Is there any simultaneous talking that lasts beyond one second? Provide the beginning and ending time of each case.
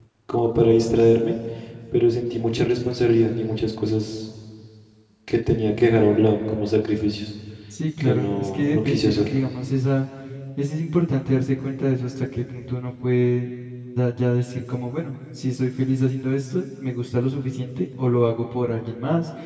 8.0-9.4

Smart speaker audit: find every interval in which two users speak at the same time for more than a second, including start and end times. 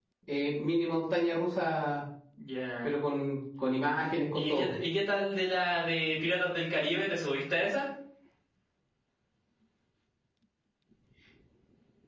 none

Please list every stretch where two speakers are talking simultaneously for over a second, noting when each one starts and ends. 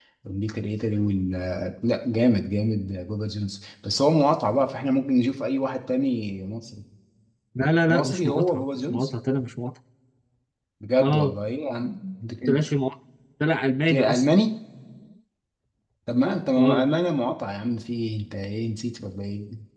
7.9-9.1

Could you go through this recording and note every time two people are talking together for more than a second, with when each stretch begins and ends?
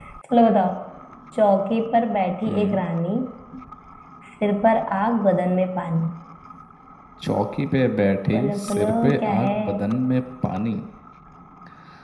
8.3-9.6

